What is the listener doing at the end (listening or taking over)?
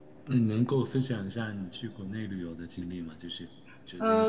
taking over